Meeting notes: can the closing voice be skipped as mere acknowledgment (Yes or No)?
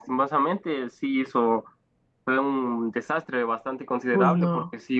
Yes